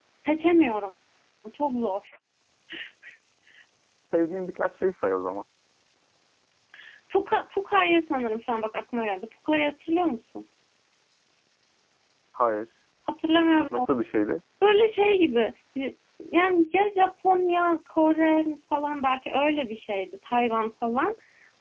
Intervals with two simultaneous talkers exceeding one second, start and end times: none

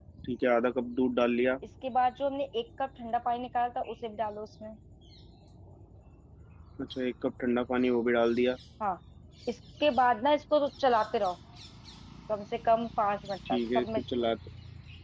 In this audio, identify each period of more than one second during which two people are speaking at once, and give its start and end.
none

